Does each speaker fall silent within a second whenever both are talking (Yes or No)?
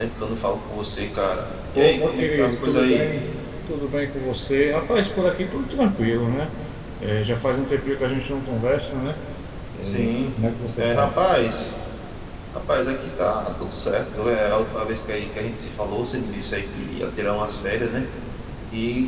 No